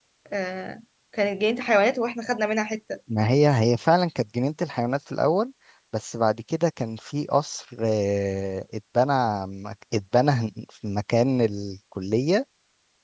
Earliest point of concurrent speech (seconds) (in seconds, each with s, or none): none